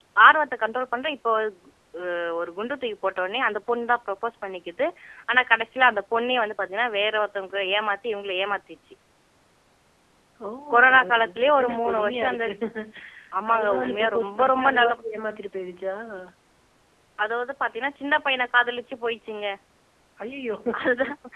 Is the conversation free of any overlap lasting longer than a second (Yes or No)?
No